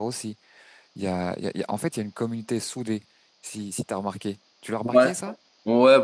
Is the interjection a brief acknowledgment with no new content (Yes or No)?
No